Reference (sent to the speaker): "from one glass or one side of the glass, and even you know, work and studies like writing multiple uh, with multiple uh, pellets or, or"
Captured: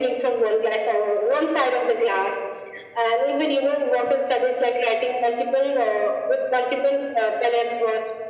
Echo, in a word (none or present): present